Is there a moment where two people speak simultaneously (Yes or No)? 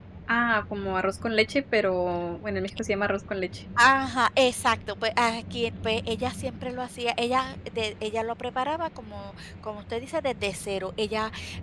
No